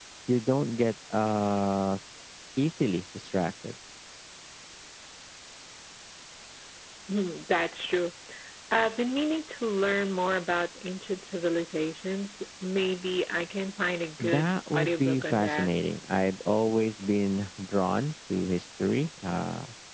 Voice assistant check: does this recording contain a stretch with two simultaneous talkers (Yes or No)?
Yes